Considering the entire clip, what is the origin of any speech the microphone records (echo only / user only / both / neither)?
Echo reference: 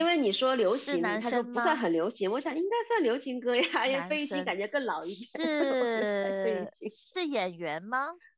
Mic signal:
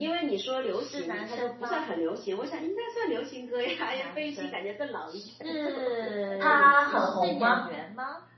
both